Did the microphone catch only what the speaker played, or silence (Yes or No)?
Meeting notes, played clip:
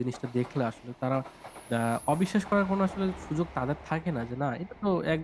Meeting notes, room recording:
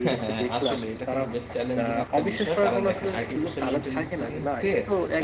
No